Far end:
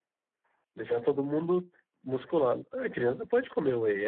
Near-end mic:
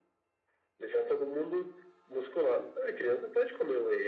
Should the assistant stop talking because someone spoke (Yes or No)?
No